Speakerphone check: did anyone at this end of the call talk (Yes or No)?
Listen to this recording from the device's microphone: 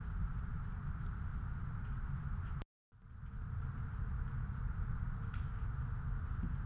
No